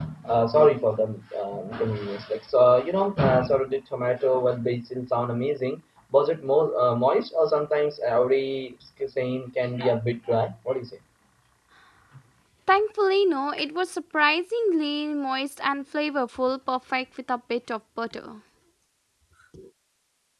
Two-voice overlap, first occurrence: none

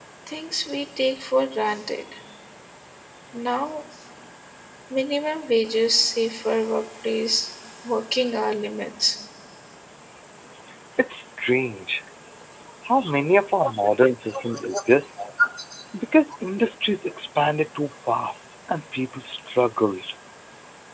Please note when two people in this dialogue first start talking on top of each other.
none

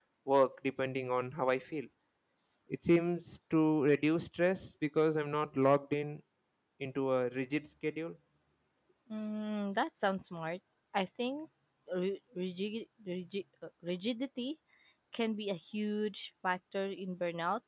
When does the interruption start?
none

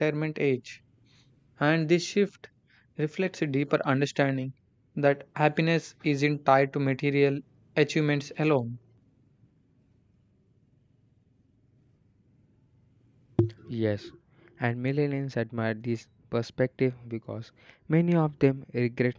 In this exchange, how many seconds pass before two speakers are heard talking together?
none

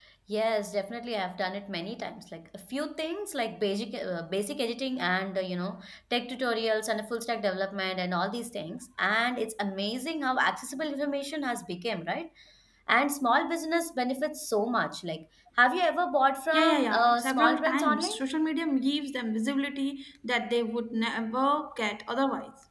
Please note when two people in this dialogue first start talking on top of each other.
17 s

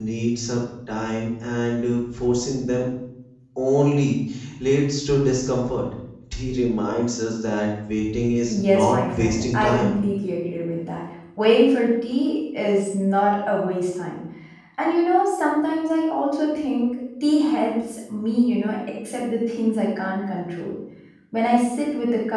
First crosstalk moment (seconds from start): 8 s

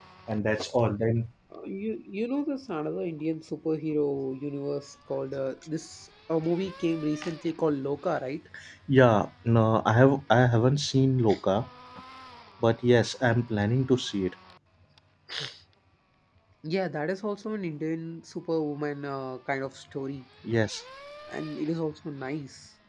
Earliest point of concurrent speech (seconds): none

